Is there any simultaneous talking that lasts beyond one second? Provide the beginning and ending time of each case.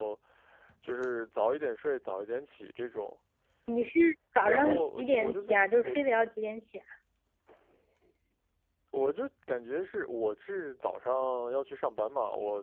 4.4-6.0

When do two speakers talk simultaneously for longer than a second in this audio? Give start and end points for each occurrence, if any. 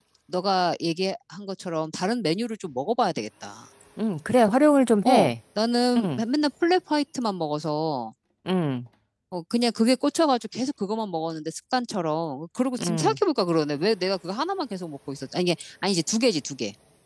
none

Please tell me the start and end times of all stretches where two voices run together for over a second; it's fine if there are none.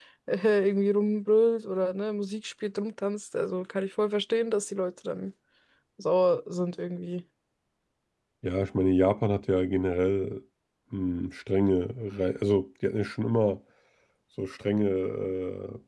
none

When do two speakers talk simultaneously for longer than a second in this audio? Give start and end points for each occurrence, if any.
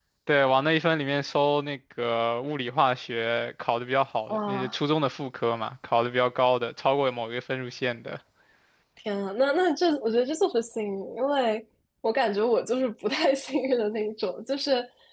none

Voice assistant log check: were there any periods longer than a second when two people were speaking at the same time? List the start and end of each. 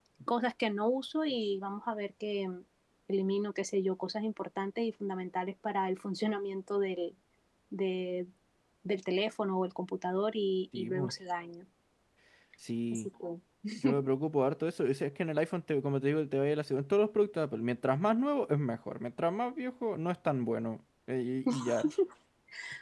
none

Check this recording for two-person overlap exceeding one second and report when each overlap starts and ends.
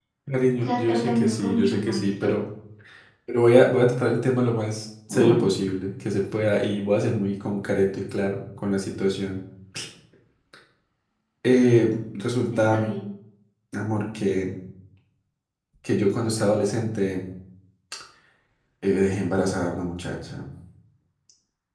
0.7-2.3

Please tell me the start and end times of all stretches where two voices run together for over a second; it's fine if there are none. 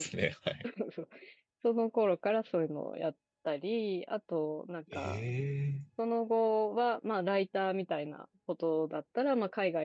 none

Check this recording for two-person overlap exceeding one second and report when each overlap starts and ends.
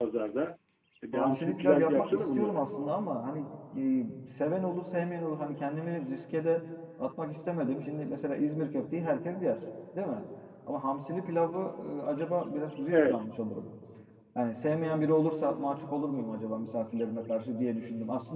1.1-2.6

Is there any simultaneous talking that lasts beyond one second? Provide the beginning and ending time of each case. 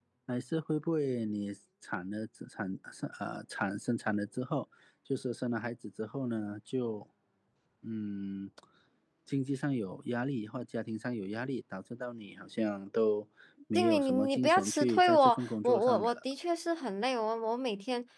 13.8-16.2

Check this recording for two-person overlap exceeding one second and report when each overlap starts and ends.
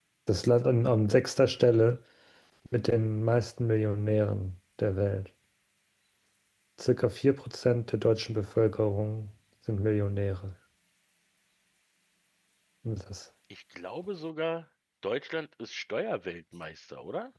none

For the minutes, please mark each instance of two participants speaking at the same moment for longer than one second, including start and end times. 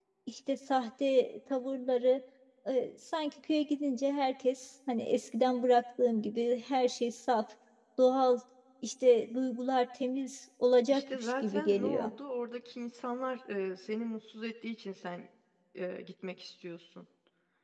10.9-12.1

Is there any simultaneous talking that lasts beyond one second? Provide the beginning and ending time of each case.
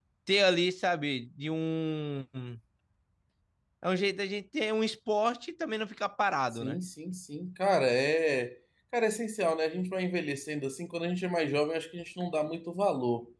none

